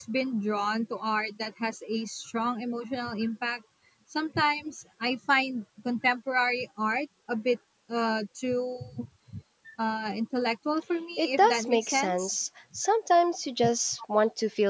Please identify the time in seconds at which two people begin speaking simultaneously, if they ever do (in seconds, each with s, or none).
11.2 s